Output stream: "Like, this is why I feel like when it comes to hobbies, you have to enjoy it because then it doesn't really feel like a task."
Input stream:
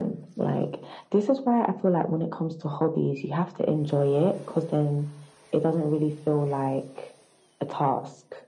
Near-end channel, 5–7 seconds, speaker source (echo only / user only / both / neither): echo only